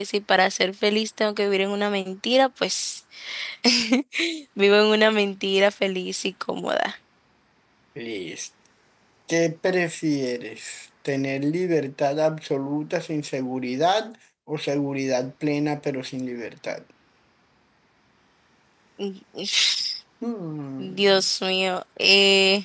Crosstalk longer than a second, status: none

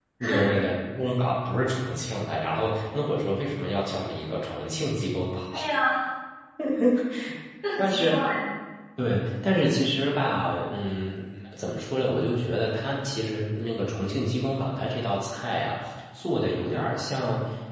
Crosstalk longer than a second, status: none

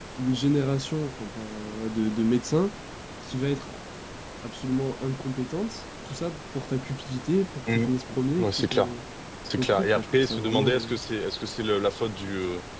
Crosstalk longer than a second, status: present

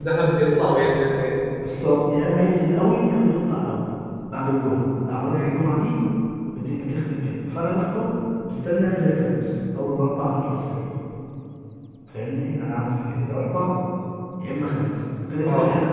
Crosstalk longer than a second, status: none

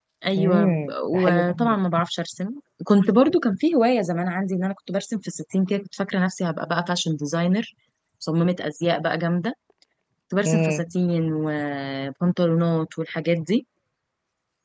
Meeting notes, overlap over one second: present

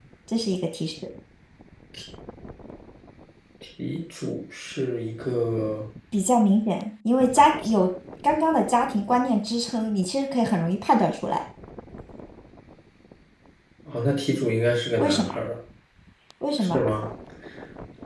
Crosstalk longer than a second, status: none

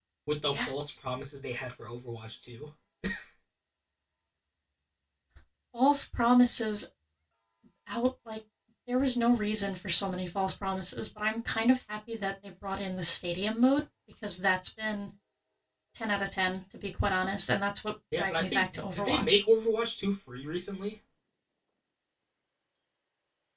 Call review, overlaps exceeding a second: present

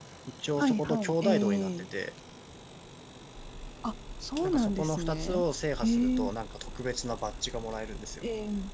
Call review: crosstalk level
present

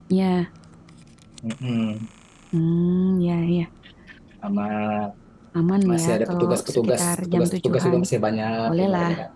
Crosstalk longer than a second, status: present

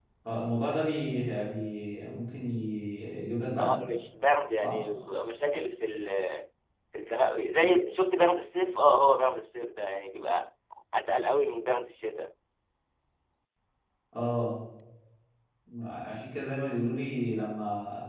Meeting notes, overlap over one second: none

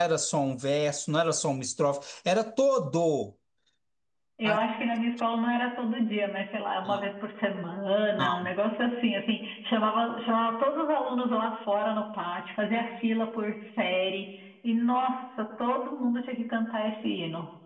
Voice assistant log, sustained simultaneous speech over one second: none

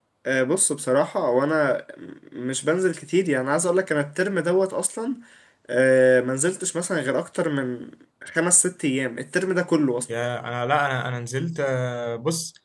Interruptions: none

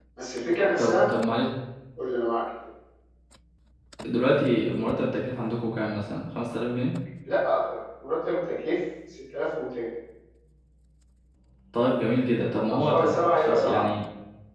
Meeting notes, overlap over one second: present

